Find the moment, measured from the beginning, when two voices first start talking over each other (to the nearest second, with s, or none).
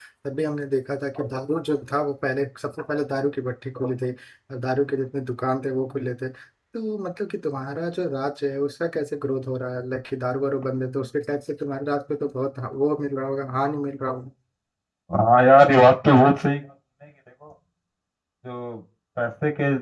none